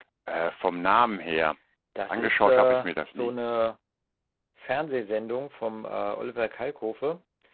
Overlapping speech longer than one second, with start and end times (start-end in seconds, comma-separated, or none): 2.1-3.3